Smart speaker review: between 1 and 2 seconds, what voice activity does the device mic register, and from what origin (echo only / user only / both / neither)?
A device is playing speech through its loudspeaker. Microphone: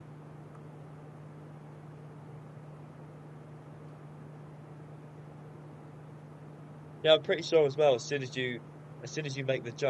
neither